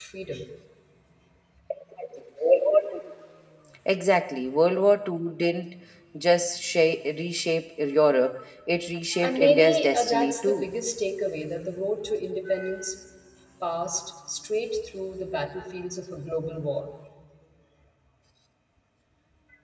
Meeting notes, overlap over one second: present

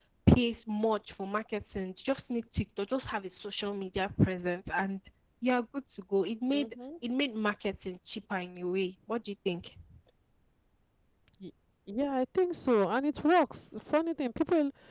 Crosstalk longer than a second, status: none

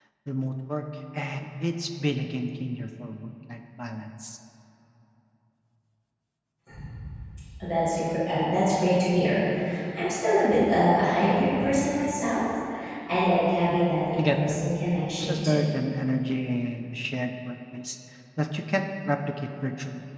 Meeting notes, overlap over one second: none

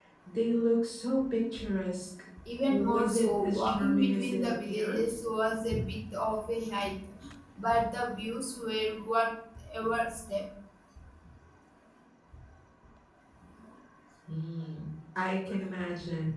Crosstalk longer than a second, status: present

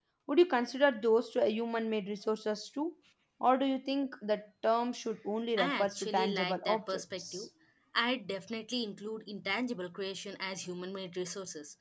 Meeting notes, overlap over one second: present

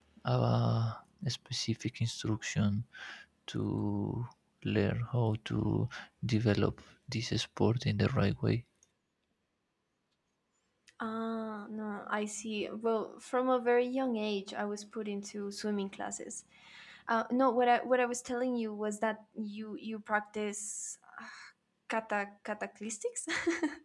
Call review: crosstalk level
none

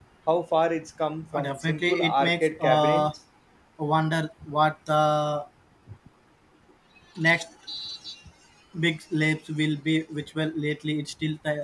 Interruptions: present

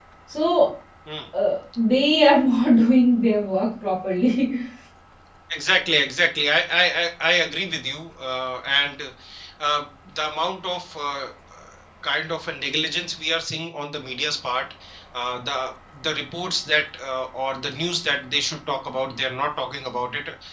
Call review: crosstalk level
none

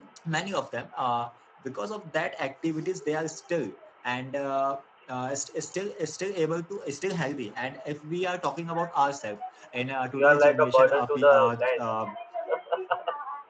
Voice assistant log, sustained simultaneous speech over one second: present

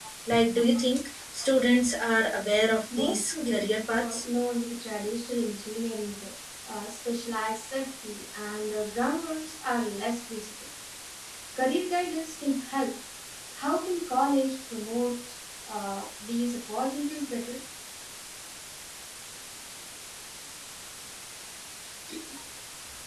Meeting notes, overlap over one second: present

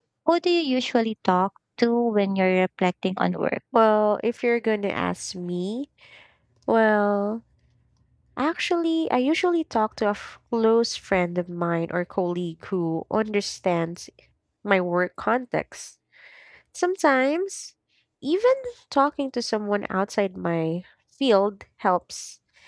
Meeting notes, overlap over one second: none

